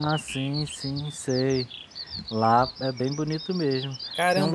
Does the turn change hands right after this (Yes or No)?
Yes